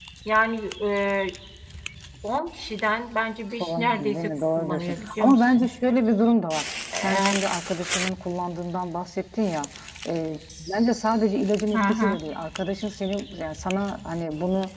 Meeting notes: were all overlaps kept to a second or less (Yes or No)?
No